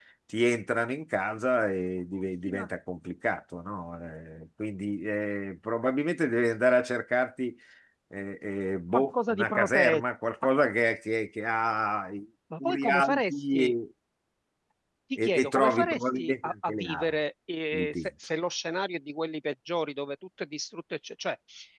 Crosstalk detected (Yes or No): Yes